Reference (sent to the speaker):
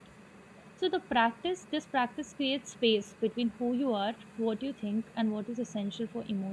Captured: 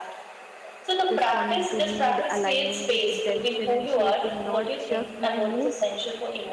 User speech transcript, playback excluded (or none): responding to need aligning with intention and shaping not just my mood